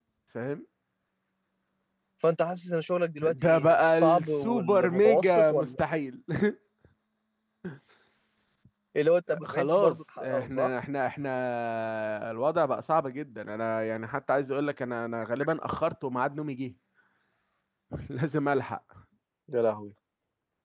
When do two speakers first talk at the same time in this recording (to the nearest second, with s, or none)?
3 s